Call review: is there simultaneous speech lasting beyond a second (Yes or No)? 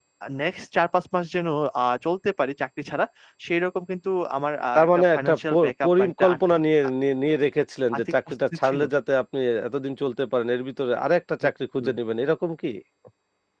Yes